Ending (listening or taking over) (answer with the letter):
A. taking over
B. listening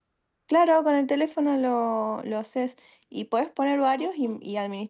B